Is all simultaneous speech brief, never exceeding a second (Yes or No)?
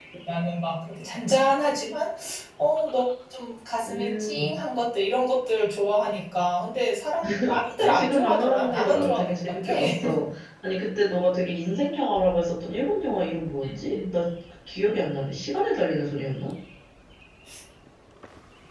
No